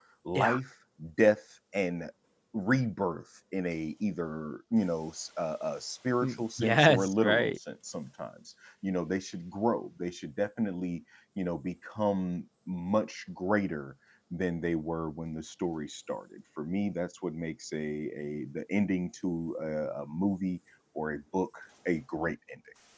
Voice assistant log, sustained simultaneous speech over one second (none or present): present